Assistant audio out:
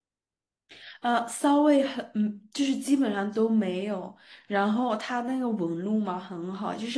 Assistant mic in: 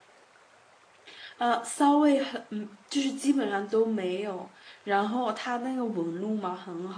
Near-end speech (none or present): none